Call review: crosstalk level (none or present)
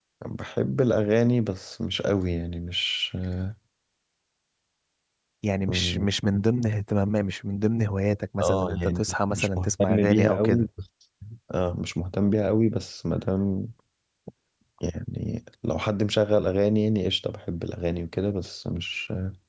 present